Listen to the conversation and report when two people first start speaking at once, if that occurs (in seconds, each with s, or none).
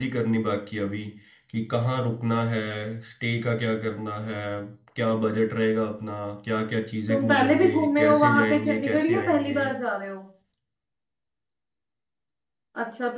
7.1 s